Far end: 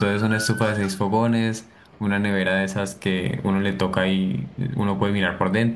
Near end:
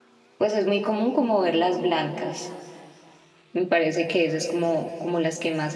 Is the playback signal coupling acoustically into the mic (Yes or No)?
No